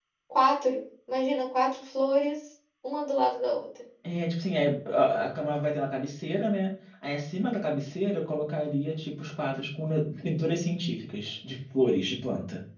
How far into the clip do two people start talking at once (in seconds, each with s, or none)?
none